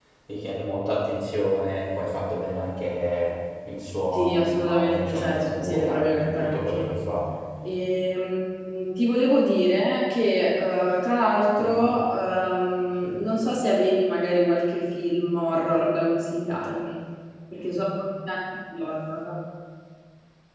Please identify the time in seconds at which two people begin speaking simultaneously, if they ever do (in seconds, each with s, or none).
4.1 s